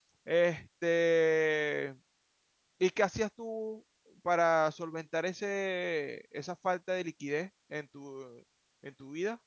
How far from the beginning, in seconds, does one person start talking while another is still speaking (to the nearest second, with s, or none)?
none